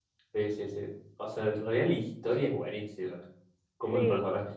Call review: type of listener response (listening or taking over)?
listening